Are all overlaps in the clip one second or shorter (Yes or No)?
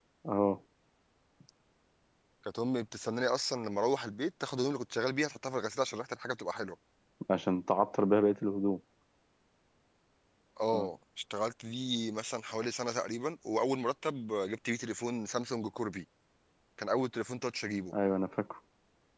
Yes